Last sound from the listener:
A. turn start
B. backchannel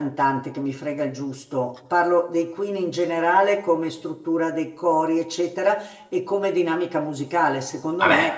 B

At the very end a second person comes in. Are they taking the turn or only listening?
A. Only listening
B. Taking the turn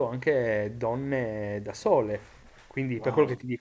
A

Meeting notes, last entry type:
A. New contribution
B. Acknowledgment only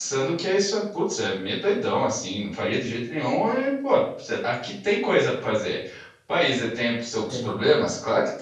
B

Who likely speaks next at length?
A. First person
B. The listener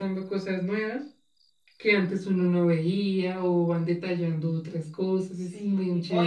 B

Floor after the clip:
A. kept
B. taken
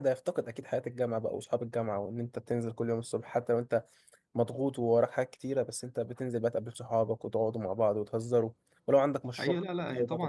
B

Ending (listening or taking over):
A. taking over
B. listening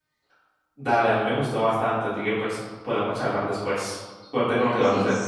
A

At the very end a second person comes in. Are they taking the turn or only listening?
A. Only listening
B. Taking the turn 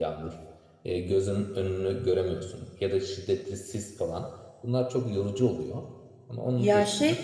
B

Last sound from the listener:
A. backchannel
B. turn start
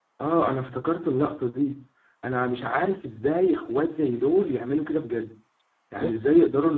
A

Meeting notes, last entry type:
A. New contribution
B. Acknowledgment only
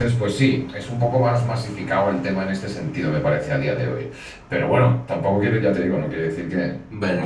A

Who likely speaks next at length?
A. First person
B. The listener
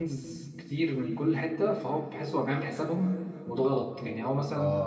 A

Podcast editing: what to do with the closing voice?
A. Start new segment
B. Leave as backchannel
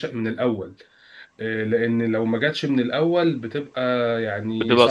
A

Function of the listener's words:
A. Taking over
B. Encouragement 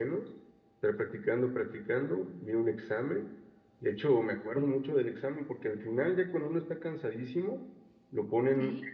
B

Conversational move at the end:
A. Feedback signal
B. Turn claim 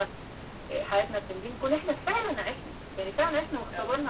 A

